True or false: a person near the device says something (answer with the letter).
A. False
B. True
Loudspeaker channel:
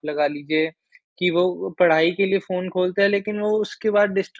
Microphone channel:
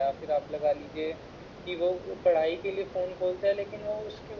A